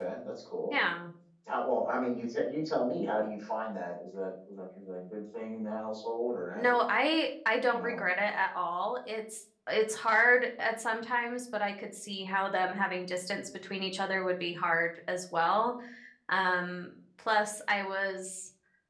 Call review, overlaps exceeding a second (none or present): none